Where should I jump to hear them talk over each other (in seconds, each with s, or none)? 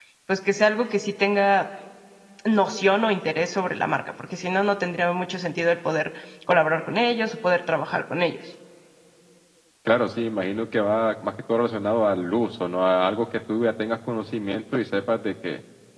none